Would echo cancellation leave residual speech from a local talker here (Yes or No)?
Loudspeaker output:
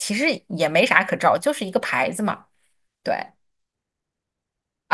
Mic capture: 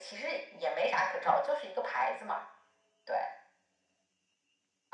No